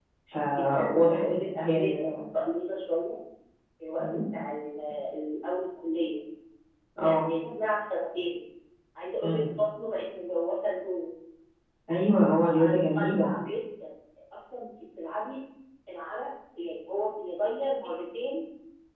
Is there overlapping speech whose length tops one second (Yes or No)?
Yes